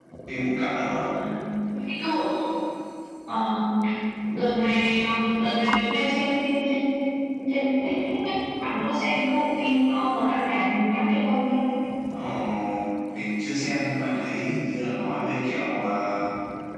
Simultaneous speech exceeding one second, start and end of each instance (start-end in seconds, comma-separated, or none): none